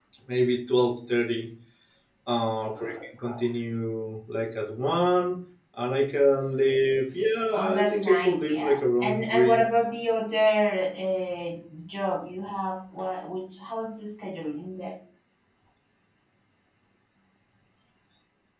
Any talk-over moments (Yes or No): Yes